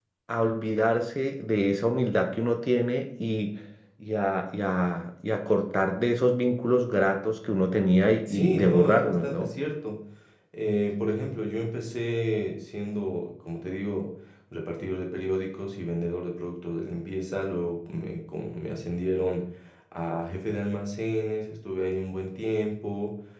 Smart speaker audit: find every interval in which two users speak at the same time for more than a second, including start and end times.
8.3-9.5

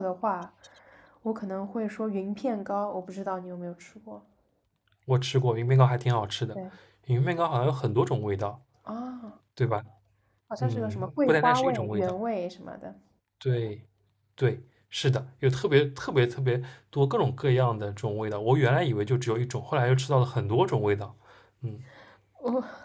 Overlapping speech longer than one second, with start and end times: 10.6-12.1

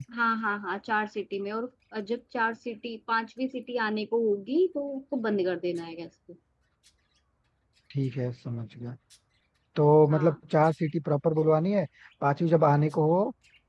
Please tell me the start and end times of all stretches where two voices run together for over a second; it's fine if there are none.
none

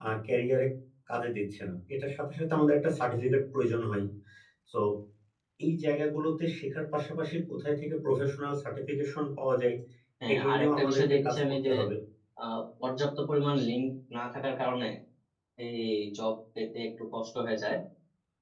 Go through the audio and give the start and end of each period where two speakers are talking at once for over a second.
10.3-11.7

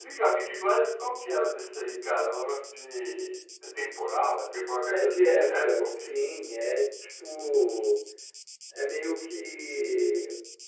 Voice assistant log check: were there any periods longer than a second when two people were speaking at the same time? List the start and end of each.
4.9-6.1

